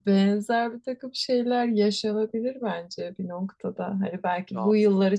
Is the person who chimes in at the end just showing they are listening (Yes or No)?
Yes